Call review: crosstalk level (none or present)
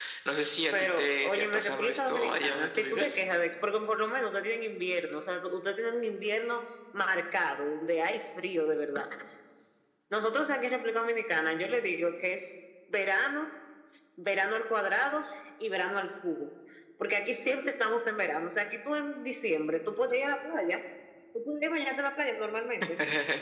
present